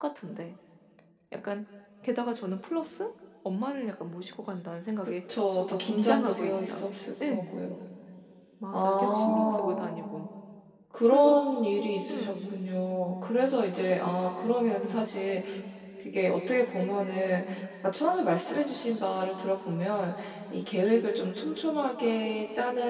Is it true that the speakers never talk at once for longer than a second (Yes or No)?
No